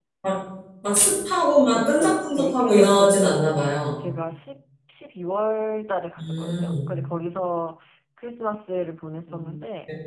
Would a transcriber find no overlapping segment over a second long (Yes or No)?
No